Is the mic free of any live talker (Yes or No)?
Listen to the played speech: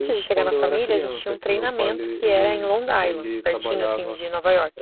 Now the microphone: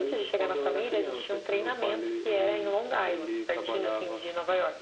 Yes